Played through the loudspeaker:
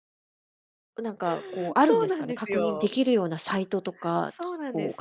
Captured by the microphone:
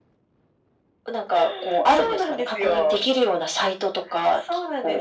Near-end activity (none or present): none